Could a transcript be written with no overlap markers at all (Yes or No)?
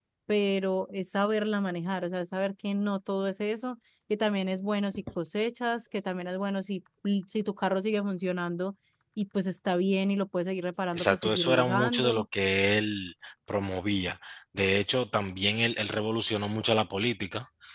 No